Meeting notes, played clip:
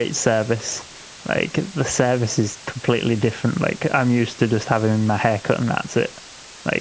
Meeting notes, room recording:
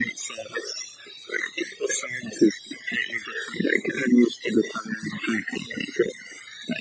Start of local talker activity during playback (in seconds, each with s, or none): none